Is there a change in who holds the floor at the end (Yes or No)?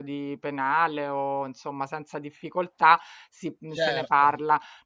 No